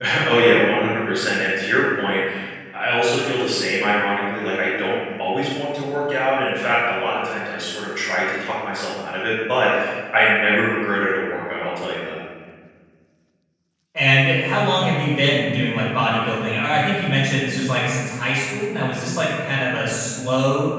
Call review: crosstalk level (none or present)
none